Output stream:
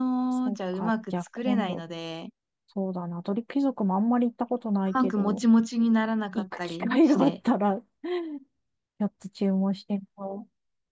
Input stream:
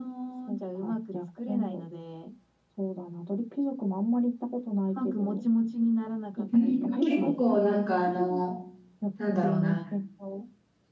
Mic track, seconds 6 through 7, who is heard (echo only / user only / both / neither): both